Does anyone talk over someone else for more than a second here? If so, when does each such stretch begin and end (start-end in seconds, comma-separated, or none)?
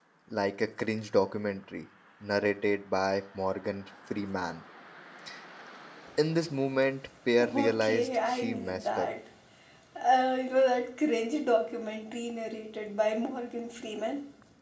7.4-9.1